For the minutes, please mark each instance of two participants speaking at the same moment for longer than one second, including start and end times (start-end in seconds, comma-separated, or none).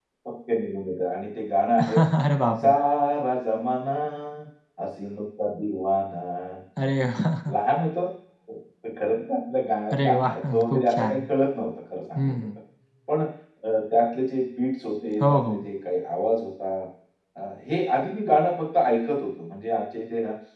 10.0-11.2